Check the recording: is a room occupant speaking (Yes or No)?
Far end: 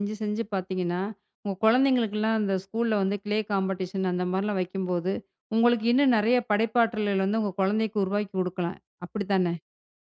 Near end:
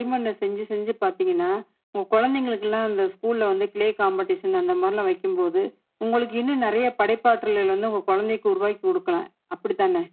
No